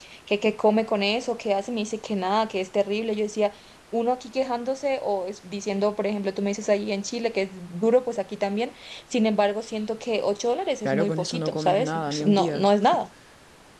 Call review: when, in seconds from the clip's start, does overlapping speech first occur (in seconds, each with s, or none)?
10.8 s